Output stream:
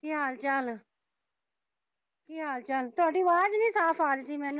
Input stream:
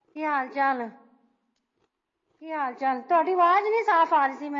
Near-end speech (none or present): none